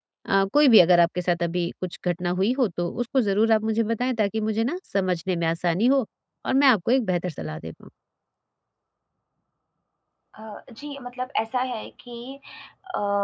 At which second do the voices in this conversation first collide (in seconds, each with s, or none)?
none